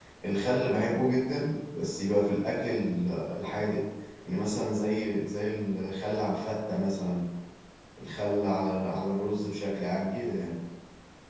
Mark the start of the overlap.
none

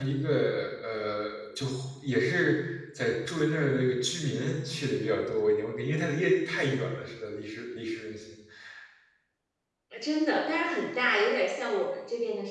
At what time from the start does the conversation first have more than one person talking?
none

